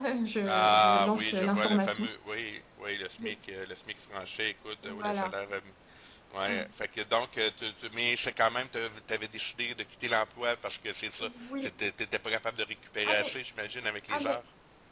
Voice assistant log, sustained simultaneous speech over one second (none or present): present